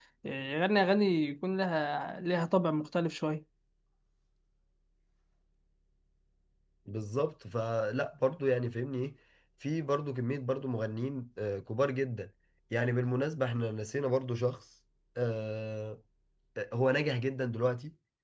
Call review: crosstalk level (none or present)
none